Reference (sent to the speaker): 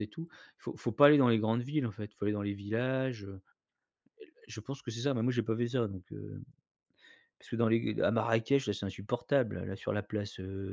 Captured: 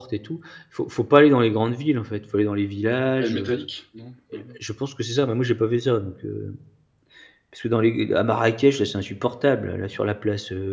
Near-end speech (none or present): present